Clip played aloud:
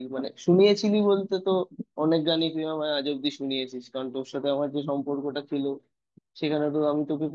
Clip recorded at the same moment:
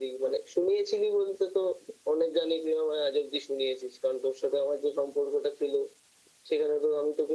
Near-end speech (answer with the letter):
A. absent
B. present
A